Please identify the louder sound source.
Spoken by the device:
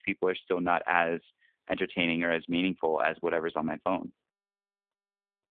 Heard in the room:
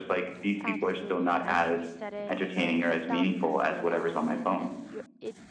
echo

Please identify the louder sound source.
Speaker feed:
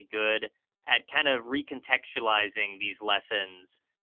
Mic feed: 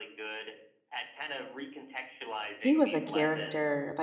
user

